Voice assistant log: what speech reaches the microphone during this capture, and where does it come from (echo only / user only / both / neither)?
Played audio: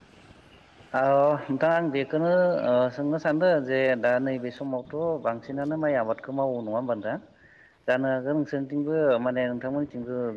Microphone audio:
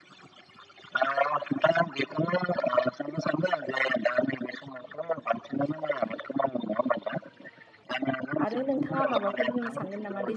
both